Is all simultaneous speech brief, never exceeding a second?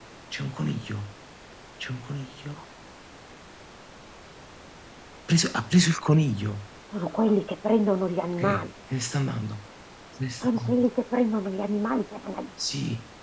Yes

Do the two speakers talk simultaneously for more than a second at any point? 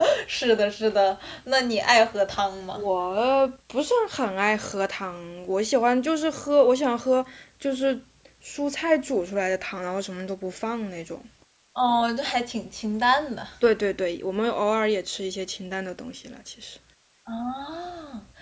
No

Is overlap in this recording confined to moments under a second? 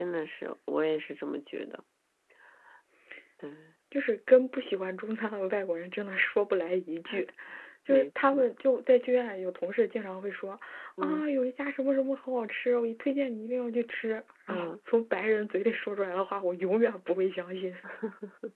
Yes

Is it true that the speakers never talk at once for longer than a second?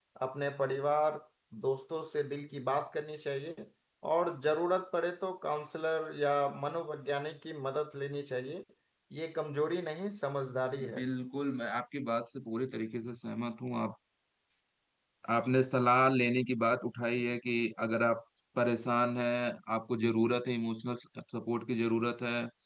Yes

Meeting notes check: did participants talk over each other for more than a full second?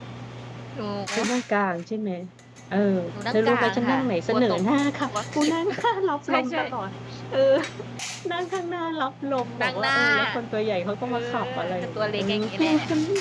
Yes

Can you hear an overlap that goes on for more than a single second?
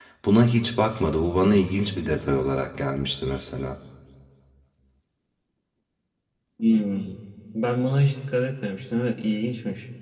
No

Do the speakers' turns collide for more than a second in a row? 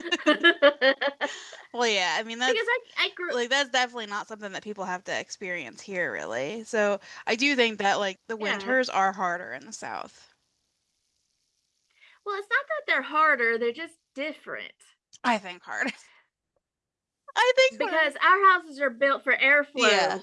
No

